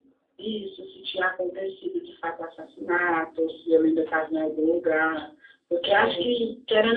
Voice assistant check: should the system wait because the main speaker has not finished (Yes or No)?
Yes